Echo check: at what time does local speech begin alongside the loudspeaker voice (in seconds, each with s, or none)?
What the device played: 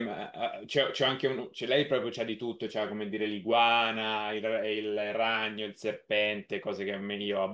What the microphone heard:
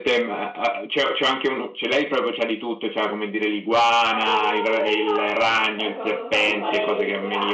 3.9 s